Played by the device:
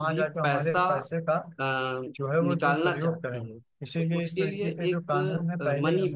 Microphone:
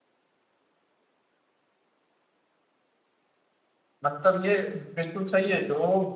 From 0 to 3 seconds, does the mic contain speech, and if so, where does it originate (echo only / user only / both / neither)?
neither